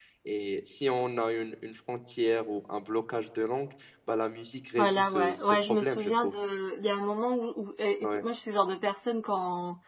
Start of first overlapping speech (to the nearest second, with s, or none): 5 s